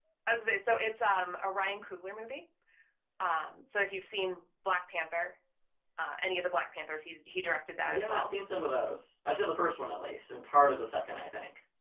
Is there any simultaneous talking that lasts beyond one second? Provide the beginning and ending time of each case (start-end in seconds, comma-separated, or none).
none